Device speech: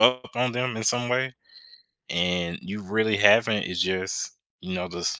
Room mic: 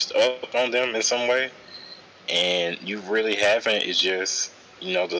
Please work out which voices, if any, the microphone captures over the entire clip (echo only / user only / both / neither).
echo only